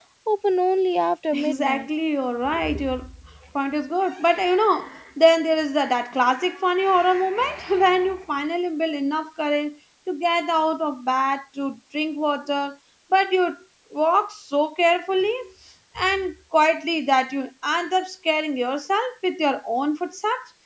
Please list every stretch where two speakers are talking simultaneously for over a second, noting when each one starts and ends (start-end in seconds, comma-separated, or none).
none